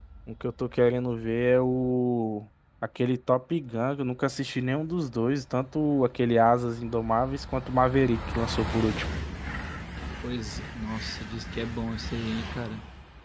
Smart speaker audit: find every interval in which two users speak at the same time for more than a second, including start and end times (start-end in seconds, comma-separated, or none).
none